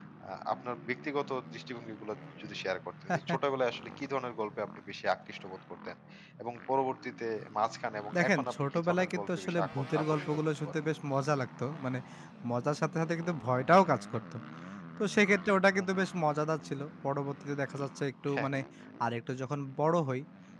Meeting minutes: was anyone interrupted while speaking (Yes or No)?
Yes